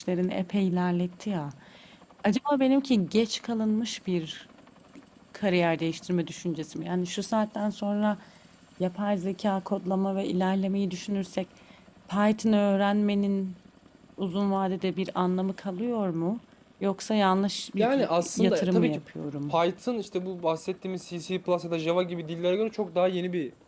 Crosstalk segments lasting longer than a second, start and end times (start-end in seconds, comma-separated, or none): 17.8-19.0